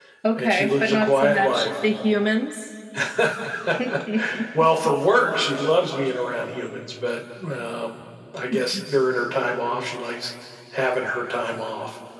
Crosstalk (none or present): present